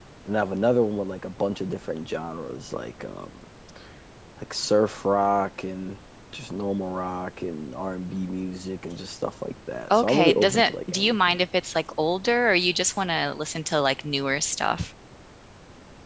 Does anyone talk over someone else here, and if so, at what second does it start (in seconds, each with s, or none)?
9.9 s